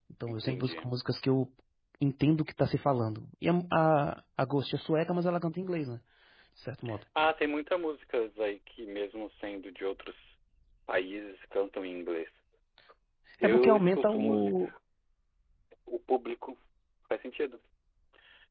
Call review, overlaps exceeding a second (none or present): present